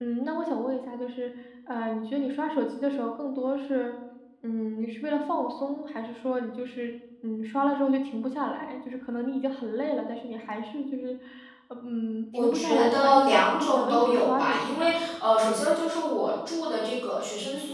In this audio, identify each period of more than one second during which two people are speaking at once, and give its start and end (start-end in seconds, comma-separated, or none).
12.3-15.0